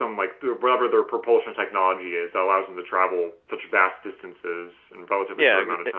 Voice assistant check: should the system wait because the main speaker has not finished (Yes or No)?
No